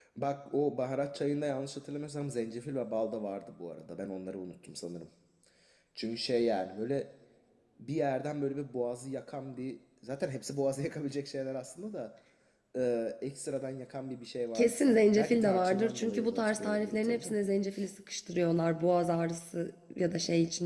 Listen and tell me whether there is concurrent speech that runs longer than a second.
Yes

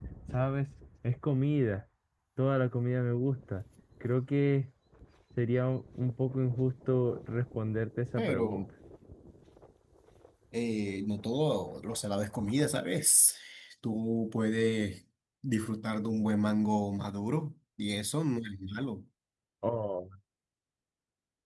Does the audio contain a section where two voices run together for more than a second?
No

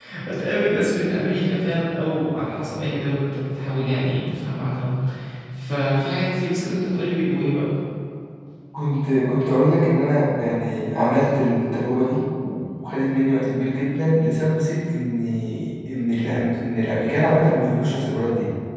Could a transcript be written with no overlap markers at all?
Yes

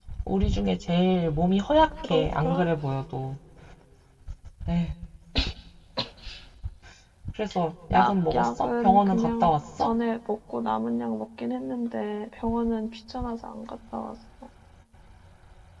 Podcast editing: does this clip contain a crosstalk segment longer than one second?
Yes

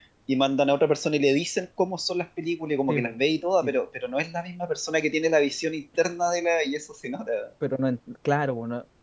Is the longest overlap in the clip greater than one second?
No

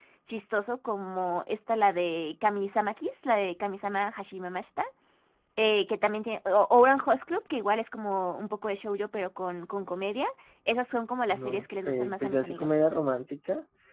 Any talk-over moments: Yes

